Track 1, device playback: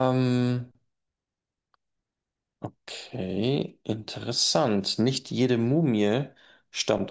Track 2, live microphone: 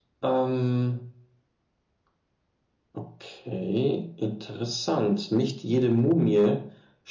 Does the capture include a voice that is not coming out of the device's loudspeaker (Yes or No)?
No